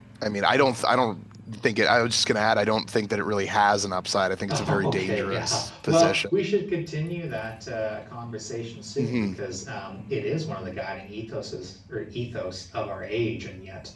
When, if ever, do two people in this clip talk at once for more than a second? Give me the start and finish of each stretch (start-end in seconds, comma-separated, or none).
4.5-6.3